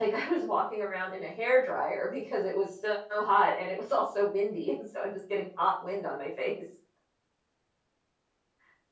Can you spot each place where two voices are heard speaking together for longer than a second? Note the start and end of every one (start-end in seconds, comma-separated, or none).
none